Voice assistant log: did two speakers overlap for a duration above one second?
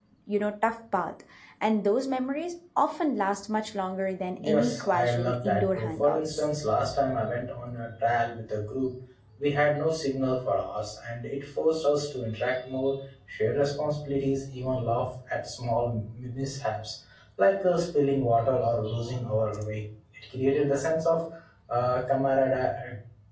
Yes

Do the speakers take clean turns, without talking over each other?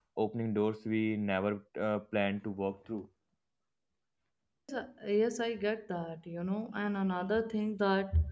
Yes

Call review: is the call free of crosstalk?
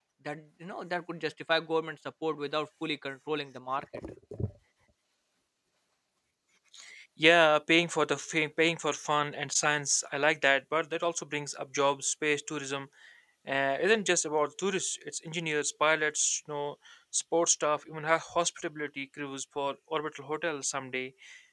Yes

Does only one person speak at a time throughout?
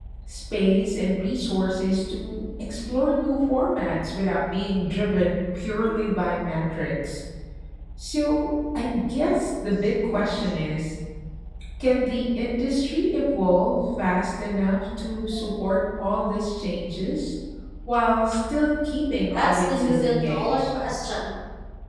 No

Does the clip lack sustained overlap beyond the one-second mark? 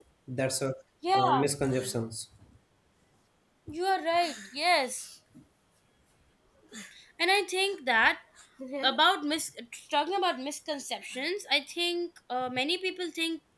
Yes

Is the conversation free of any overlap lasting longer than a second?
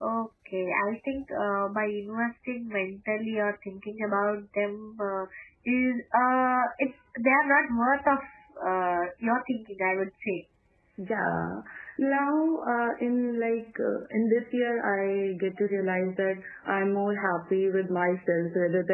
Yes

